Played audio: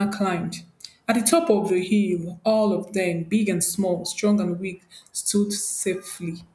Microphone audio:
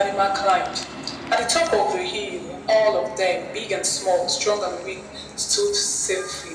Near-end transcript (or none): none